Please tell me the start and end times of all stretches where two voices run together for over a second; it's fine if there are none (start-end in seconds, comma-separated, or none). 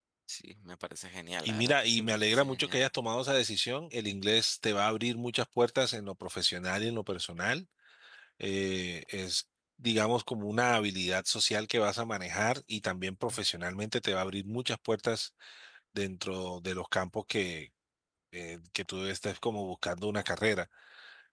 1.4-2.8